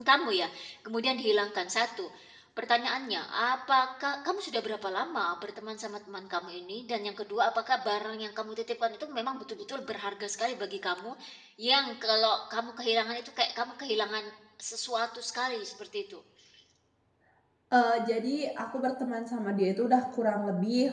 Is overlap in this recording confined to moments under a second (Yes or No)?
Yes